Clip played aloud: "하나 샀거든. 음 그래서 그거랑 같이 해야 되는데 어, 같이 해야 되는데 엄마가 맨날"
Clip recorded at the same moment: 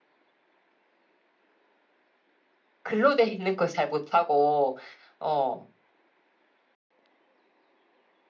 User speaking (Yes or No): Yes